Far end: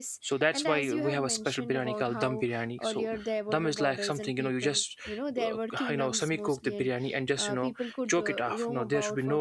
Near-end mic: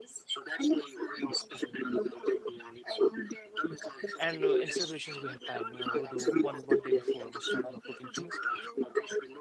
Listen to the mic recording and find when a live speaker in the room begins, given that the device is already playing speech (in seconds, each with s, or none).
4.2 s